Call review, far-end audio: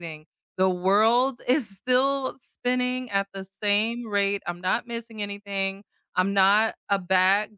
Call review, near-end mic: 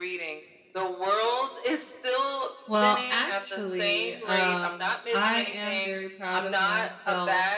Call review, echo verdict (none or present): present